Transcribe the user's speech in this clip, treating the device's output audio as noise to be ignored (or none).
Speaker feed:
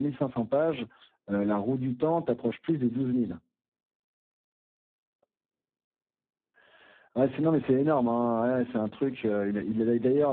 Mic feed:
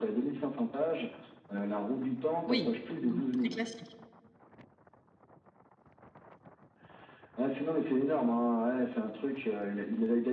oui, donc très classique.